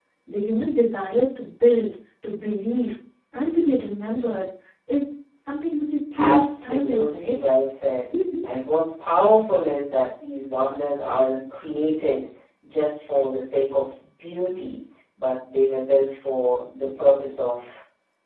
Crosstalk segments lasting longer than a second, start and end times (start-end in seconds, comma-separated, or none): 6.2-7.4